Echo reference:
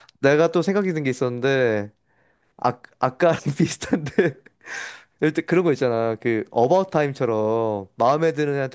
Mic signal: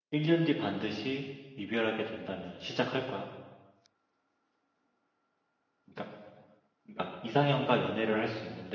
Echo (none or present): none